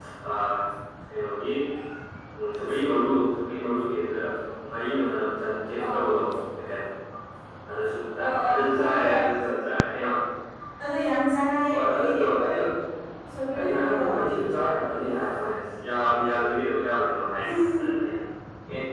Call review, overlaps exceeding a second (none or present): present